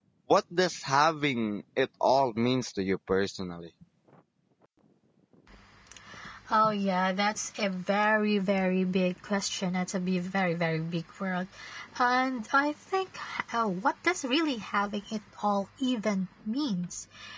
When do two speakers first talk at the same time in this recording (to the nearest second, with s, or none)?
none